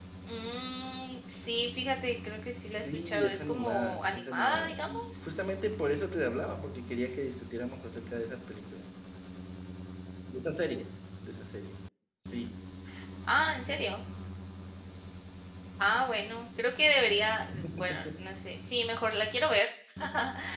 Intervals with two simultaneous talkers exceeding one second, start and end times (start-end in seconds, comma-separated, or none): 2.6-5.3